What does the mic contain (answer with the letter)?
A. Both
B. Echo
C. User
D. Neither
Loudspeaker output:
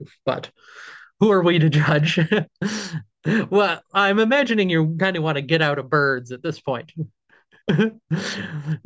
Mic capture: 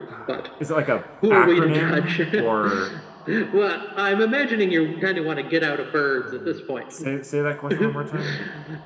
A